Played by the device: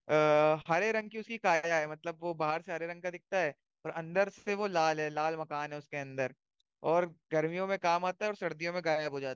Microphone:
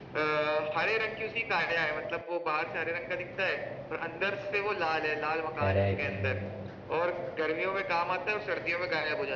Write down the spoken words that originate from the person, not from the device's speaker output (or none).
करेक्ट